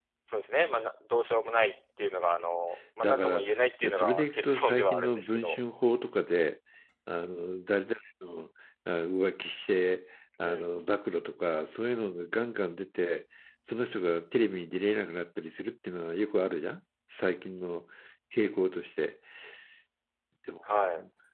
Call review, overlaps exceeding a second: present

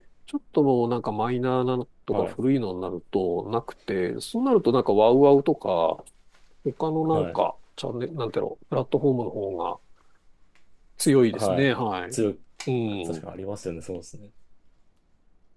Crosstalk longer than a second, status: none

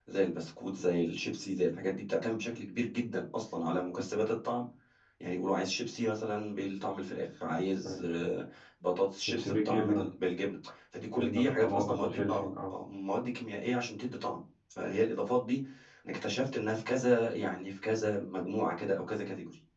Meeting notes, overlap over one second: present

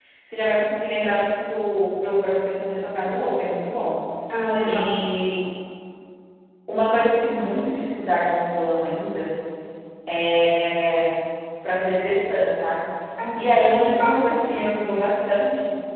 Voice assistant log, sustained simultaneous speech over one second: present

